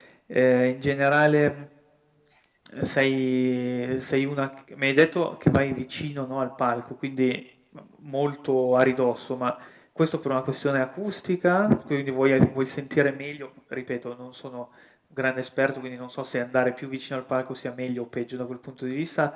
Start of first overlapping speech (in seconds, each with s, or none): none